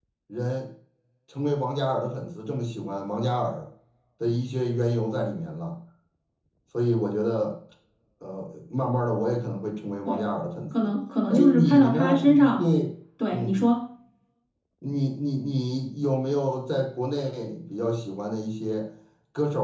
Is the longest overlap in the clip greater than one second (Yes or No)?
Yes